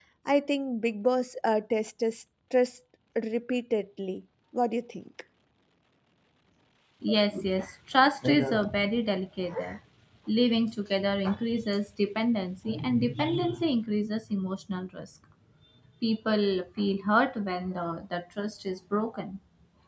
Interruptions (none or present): none